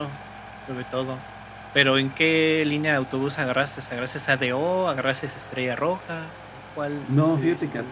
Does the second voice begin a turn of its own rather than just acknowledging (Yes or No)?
Yes